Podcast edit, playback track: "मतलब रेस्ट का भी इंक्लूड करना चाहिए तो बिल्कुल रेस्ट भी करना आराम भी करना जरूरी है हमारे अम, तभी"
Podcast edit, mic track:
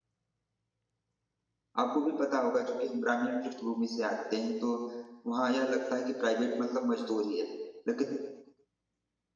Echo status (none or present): none